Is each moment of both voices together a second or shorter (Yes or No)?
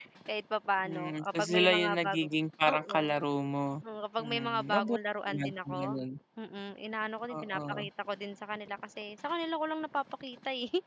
No